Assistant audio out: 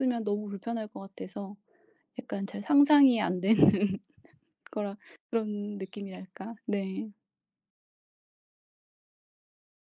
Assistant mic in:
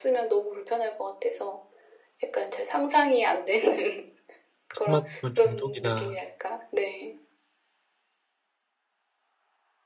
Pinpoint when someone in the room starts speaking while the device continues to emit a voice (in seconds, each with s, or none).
4.7 s